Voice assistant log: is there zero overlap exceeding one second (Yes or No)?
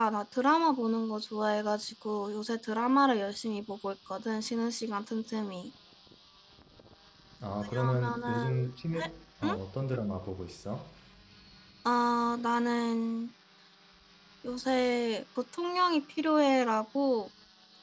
No